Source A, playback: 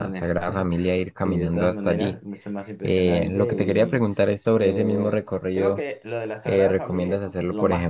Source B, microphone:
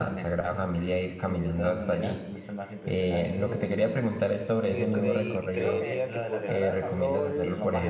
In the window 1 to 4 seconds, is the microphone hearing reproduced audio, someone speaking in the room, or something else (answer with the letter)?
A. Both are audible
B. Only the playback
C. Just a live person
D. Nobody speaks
B